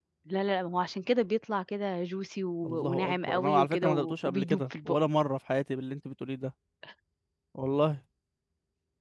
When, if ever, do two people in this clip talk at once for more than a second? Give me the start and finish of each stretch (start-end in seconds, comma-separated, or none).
2.9-5.0